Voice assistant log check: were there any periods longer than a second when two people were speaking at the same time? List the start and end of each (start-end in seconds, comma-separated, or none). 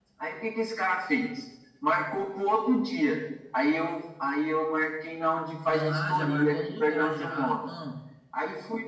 5.7-7.5